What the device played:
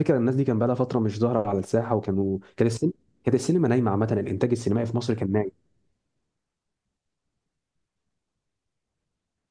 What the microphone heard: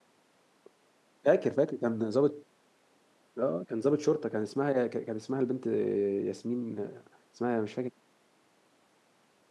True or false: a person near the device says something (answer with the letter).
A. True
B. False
A